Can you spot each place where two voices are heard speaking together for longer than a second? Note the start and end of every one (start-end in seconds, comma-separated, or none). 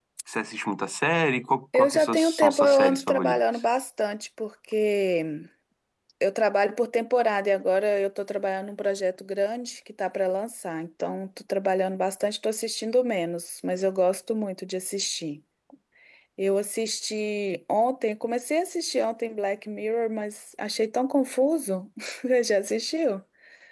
1.8-3.4